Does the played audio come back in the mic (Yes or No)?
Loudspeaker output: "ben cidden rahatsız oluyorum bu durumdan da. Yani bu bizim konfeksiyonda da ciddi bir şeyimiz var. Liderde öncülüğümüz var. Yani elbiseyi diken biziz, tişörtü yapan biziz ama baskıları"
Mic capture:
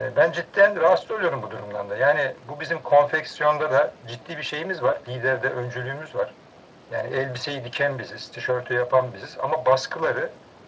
Yes